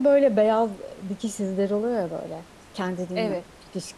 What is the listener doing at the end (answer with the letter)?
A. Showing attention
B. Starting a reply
A